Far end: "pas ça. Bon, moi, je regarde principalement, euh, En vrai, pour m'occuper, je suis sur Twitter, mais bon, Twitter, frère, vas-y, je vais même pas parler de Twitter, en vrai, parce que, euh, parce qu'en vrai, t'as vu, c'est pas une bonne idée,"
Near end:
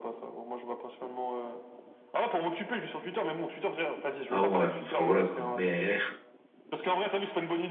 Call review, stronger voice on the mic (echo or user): user